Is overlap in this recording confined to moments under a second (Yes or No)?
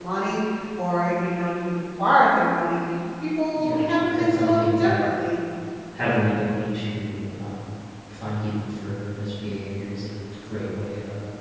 No